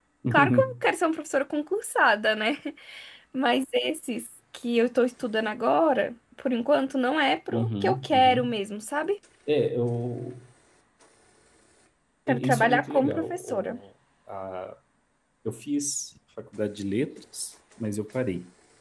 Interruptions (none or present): present